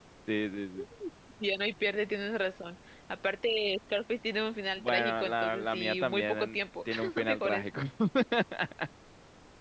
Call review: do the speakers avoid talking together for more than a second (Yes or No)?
No